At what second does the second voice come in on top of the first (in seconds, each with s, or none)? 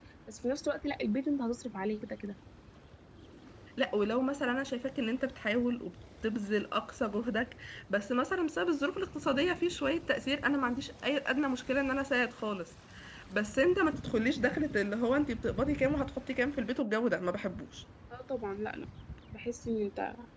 none